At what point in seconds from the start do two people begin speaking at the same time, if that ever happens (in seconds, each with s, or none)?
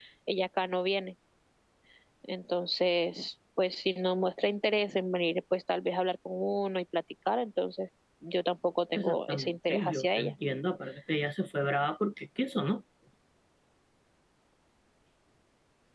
8.9 s